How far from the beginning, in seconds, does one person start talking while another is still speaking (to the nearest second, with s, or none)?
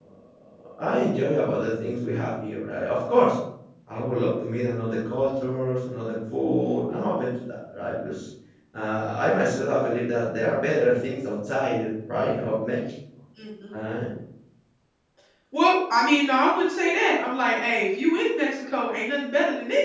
none